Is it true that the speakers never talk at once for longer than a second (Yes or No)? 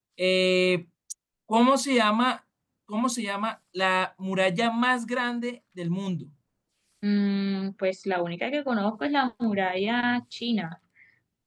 Yes